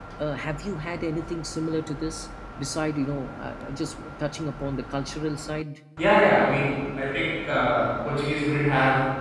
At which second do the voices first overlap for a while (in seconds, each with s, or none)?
none